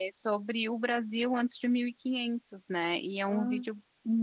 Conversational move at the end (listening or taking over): listening